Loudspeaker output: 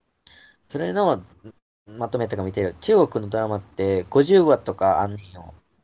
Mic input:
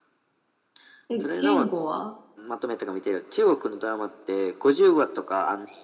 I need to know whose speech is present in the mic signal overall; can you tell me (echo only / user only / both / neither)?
both